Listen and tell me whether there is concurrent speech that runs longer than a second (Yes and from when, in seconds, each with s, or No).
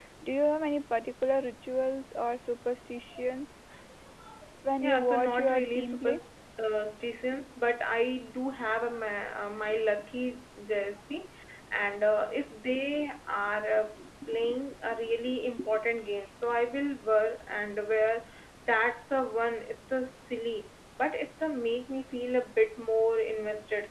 Yes, from 4.8 s